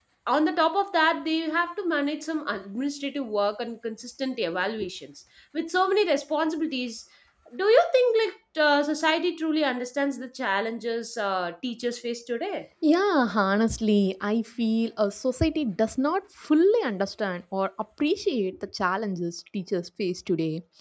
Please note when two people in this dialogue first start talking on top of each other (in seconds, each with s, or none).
none